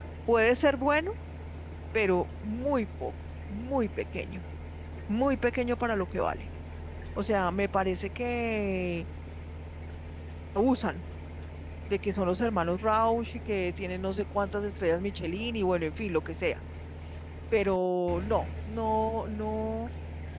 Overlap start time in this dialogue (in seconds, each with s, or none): none